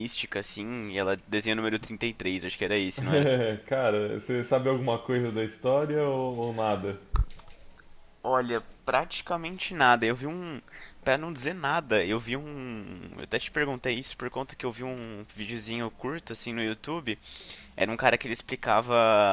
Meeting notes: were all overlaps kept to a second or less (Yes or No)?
Yes